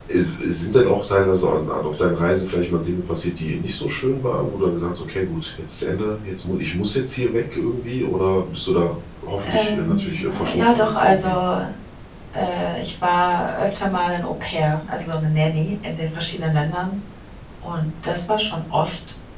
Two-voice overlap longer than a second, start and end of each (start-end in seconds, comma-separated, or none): 9.4-11.4